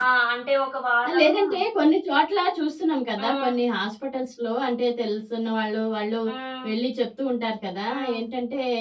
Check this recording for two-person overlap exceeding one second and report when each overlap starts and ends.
none

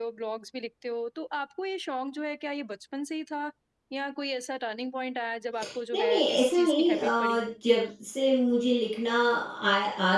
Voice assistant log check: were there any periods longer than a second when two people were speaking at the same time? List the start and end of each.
5.9-7.4

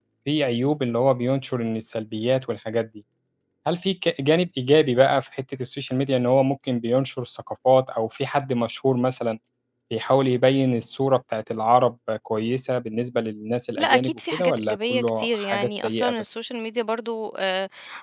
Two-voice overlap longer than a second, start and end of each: 13.8-16.3

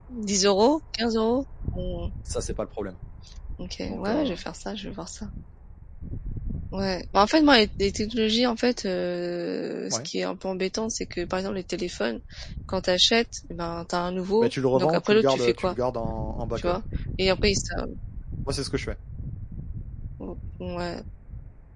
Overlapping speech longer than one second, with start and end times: 14.4-15.8

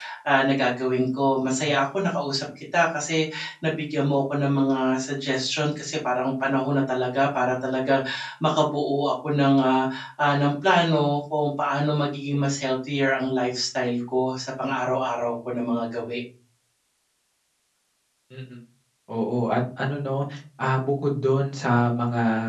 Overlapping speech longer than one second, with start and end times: none

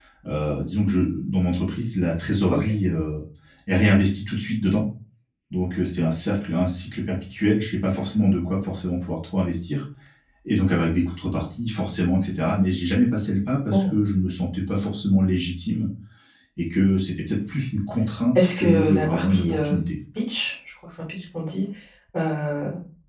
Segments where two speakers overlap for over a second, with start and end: 18.4-19.8

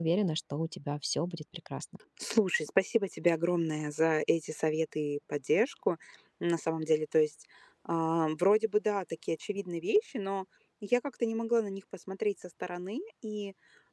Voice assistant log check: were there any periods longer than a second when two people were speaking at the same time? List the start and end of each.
none

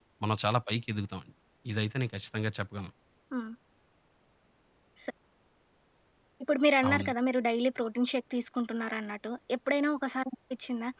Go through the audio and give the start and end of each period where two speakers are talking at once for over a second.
none

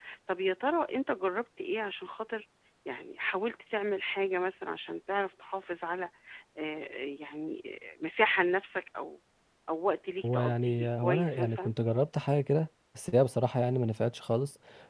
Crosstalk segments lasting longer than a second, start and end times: 10.2-11.7

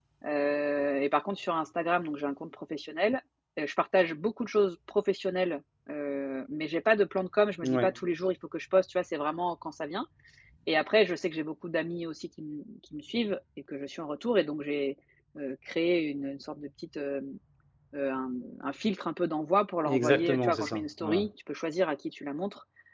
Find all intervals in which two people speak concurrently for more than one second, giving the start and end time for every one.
19.9-21.3

